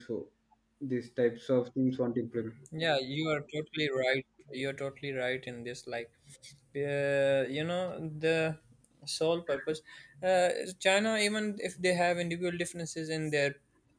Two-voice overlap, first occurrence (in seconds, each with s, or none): none